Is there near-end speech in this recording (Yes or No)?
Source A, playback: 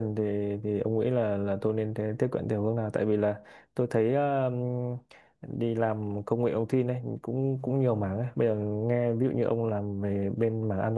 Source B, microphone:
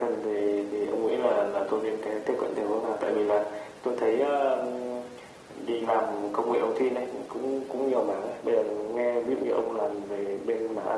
No